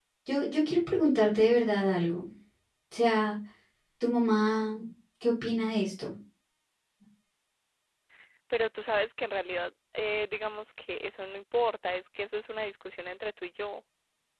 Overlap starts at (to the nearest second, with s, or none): none